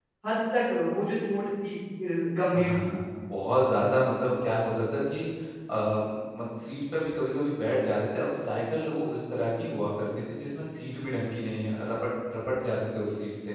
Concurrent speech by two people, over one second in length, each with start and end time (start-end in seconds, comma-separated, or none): none